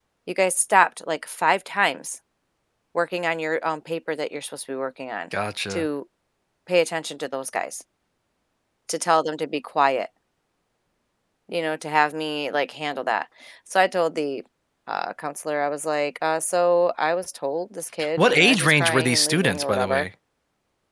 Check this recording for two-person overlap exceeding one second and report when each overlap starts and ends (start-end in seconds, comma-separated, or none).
18.2-20.1